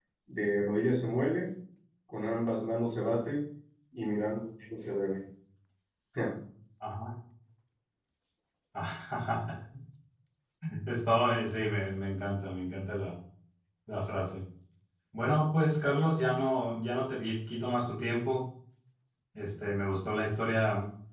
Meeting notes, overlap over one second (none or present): none